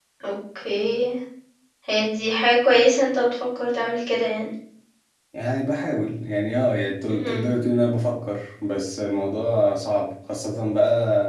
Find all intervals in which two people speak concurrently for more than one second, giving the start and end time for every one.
none

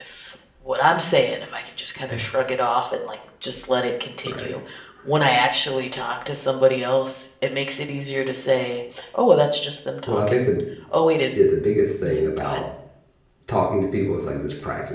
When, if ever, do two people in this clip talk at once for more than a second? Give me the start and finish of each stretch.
none

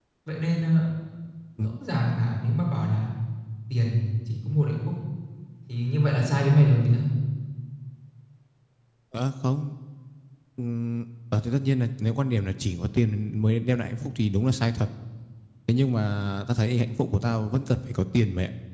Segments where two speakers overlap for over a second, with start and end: none

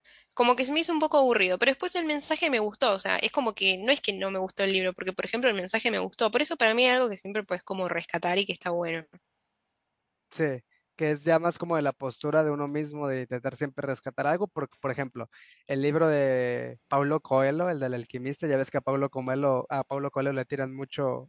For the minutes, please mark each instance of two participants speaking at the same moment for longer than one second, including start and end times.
none

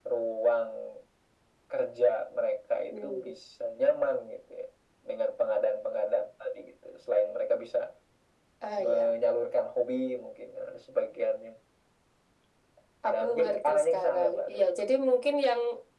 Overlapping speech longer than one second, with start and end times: 13.1-14.8

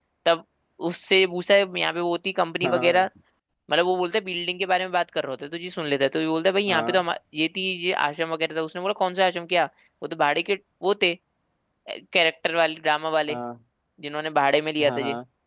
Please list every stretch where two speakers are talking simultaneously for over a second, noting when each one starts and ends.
none

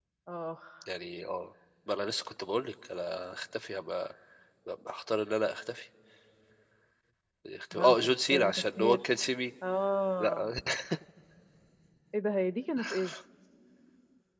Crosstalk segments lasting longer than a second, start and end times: 7.7-9.0

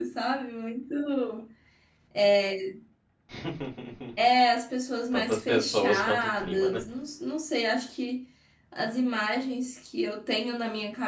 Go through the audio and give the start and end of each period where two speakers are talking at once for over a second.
5.1-6.8

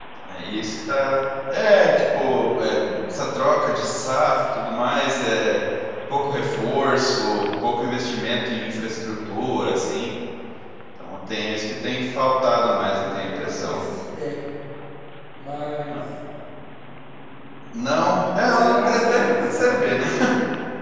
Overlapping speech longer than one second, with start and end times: 12.5-13.8, 18.4-19.9

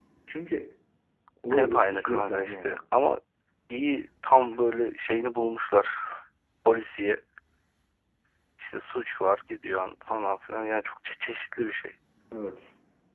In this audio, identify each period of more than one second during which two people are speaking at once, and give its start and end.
1.5-2.8

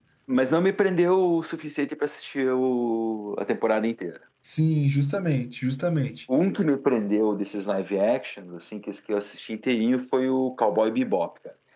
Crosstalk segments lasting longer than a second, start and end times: none

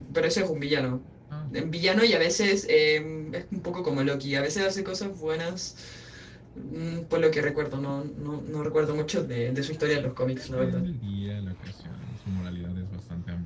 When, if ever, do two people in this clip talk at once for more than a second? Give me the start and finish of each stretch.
9.2-10.8

